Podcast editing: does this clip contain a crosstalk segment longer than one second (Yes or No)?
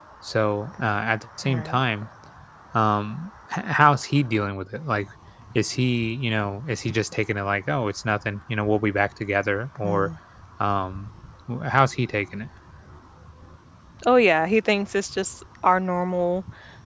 No